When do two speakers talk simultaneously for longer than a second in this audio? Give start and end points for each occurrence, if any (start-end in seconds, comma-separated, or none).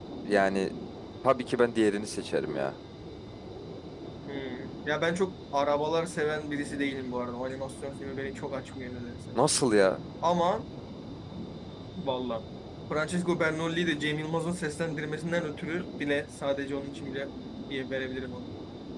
none